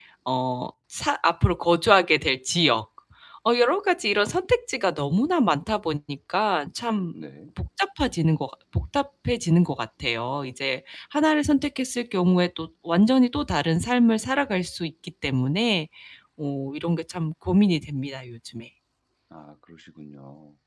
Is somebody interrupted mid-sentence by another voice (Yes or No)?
No